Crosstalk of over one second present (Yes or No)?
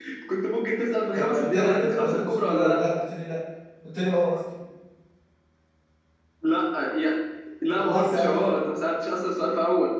Yes